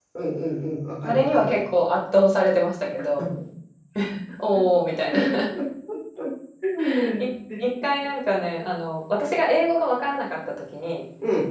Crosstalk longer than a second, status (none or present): none